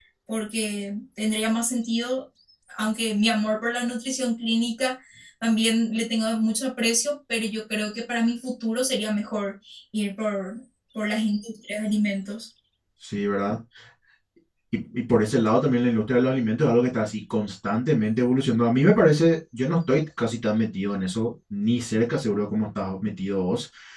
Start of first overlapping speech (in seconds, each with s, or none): none